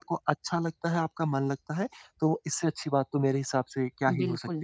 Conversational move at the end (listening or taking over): taking over